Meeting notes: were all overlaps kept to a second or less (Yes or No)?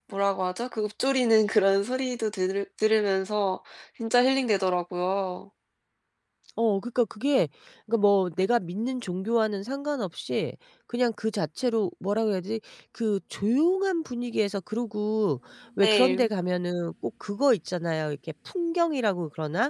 Yes